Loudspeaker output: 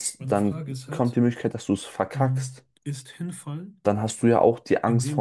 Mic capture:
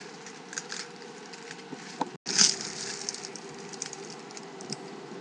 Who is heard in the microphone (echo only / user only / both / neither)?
neither